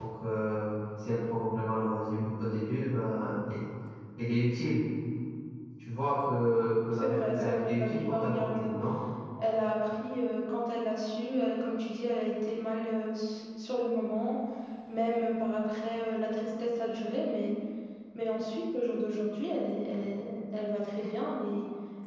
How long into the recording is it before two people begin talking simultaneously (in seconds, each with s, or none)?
6.9 s